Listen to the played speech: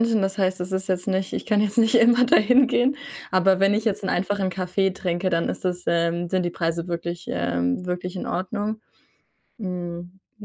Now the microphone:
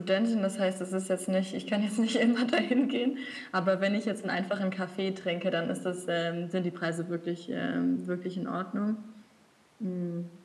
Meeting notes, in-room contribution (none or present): none